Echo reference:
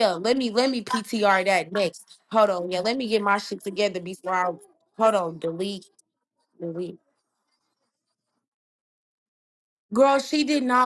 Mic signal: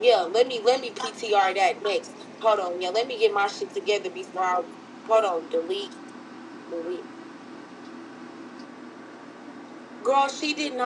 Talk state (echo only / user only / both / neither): echo only